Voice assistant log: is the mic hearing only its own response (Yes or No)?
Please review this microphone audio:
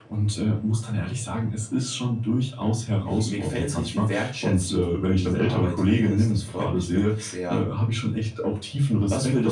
Yes